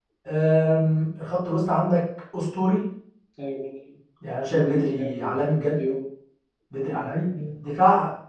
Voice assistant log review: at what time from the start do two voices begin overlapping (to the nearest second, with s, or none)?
5 s